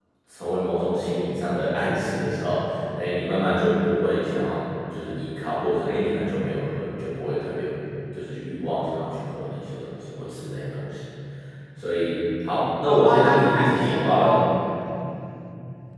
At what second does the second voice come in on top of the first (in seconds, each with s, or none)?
12.9 s